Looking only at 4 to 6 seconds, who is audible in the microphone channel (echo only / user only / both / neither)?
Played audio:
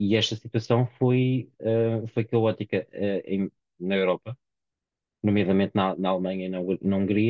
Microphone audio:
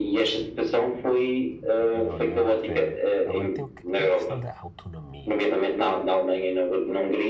both